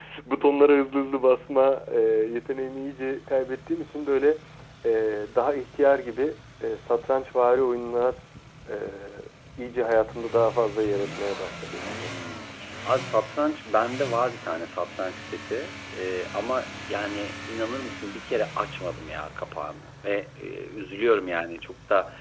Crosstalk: none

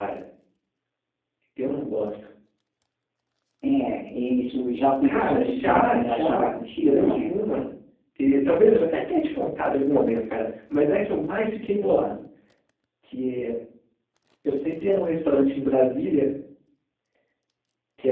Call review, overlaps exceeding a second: present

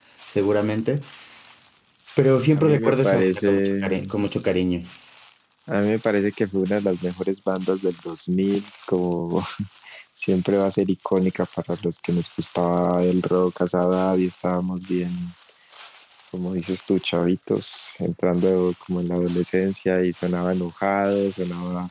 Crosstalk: present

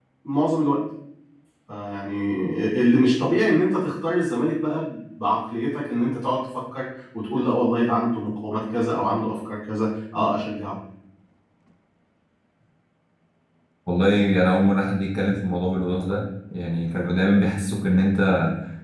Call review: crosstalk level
none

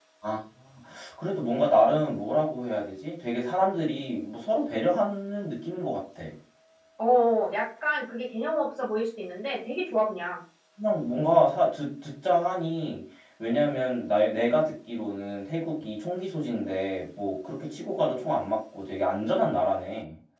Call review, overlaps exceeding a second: none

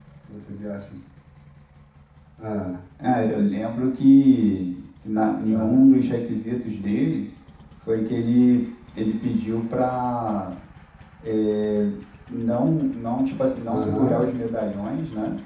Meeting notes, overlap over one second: none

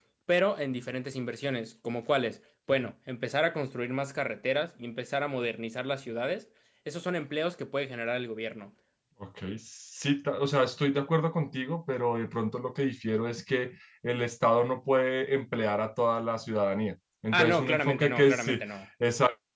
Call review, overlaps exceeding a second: present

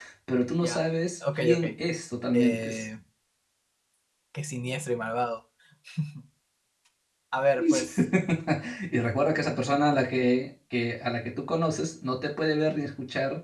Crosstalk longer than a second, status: none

